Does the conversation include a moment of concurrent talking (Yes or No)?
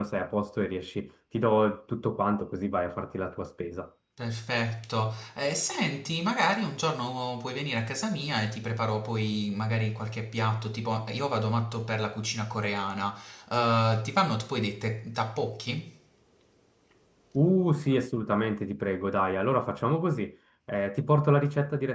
No